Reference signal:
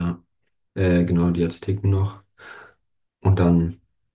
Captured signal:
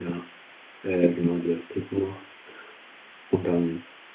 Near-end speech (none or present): none